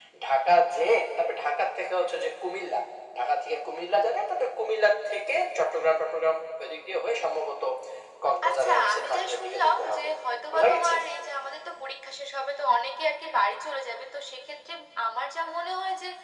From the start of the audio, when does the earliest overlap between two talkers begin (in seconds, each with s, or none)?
8.5 s